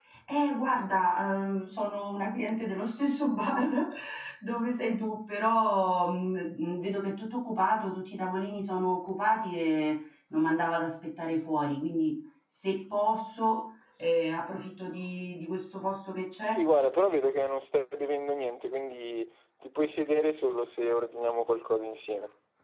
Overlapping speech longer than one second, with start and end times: none

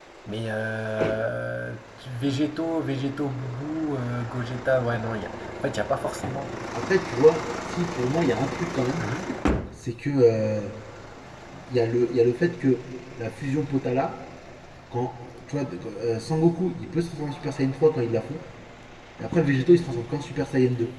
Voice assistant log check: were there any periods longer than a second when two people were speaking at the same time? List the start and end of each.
none

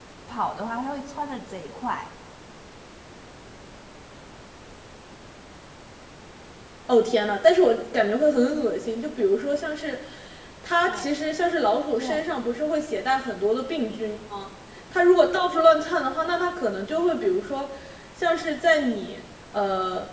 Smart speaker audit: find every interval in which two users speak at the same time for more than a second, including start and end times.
none

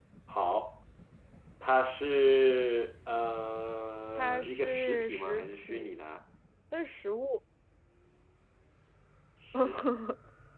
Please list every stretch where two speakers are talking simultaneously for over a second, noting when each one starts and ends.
4.2-5.9

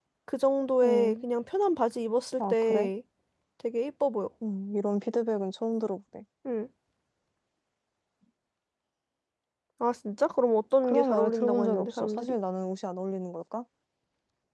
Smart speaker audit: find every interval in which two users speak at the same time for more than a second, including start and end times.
10.8-12.3

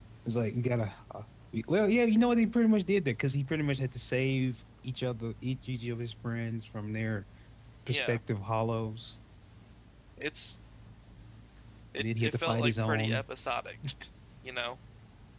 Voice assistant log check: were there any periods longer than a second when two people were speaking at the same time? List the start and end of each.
12.0-13.2

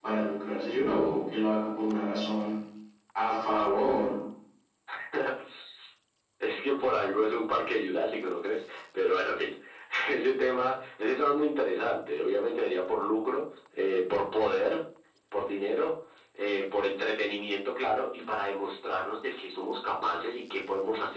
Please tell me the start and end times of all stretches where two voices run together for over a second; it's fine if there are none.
none

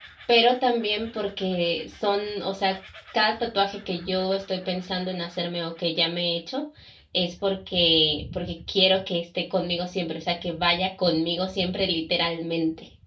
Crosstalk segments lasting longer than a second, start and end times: none

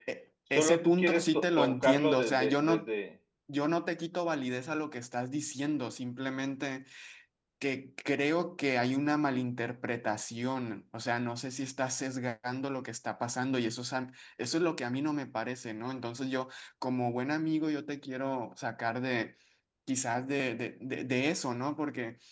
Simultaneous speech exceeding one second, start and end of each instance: 0.5-2.9

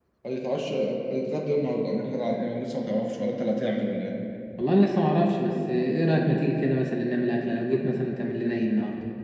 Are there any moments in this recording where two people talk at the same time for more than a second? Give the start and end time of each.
none

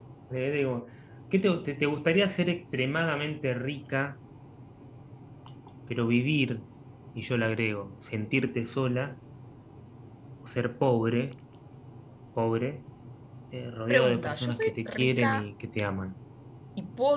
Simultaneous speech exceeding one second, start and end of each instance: 13.9-15.4

